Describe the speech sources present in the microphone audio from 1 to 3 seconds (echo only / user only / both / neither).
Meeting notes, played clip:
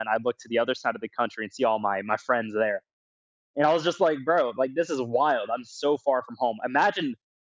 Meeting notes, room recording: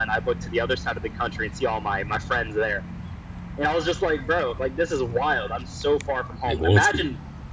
echo only